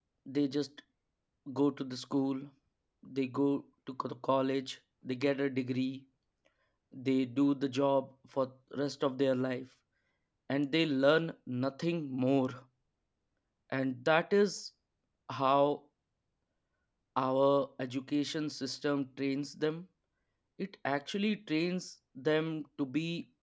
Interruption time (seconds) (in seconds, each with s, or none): none